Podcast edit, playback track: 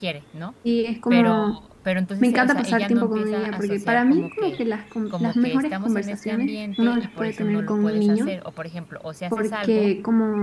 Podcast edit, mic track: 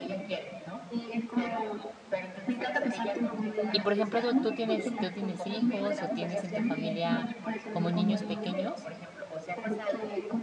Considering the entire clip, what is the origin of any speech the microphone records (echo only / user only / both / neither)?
both